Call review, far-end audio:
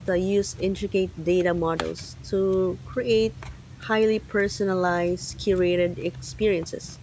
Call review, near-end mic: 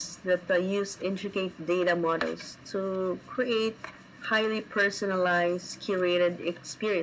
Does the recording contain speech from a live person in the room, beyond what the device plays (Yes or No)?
No